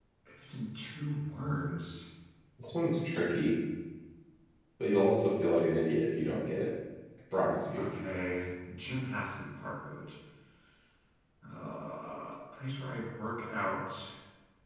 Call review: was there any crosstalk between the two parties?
No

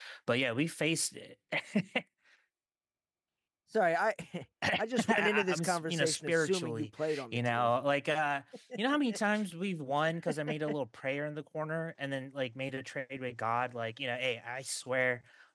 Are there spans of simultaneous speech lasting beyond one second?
Yes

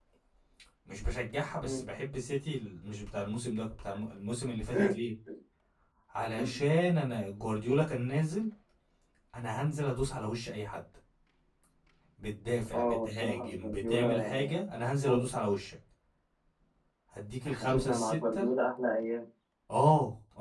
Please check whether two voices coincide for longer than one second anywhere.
Yes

